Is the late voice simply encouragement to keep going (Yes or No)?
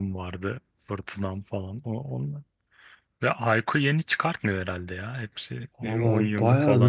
No